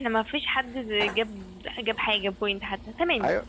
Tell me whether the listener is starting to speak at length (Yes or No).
Yes